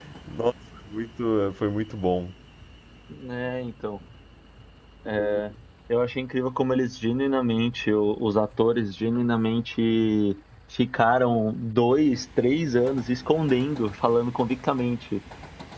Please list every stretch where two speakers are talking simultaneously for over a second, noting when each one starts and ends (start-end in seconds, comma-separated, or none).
none